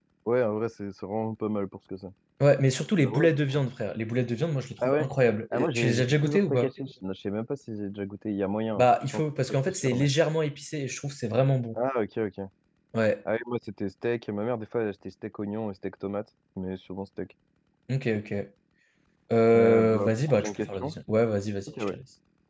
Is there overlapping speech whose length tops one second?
Yes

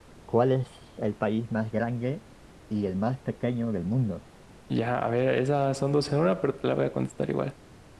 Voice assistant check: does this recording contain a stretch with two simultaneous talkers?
No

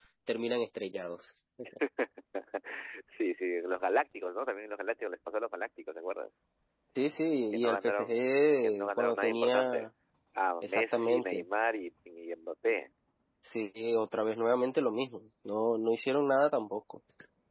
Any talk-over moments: Yes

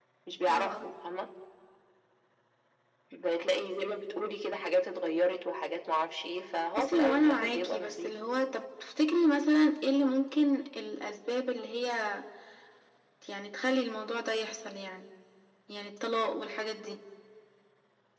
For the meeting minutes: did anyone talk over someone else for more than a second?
Yes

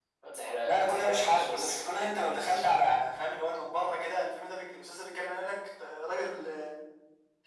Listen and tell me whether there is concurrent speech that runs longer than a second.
Yes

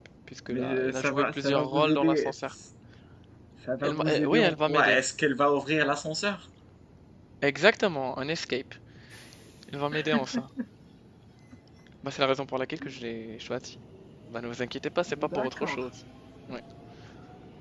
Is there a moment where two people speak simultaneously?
Yes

